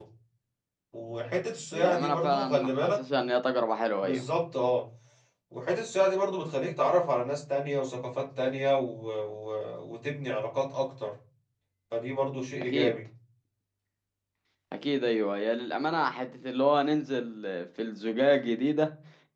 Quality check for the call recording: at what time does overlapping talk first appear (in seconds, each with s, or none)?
1.7 s